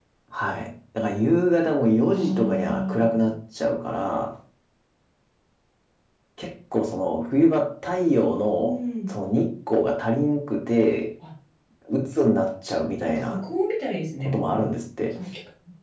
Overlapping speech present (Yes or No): Yes